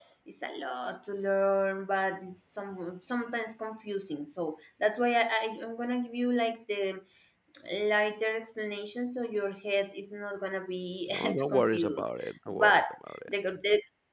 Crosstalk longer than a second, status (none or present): present